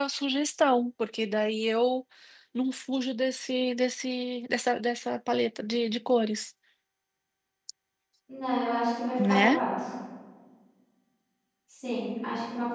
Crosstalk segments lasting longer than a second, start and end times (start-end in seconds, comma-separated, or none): none